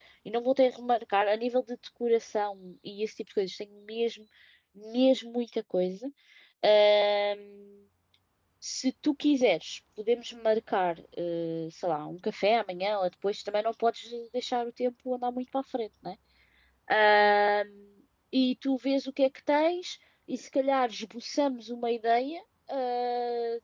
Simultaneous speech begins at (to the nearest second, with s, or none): none